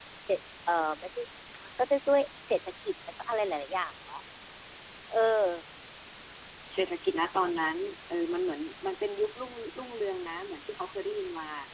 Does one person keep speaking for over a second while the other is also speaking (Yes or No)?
No